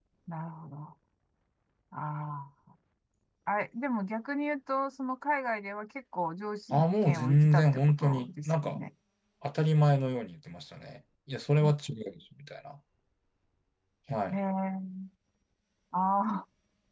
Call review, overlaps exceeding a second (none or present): present